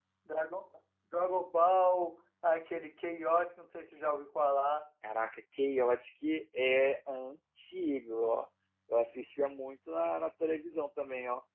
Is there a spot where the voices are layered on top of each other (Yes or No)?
No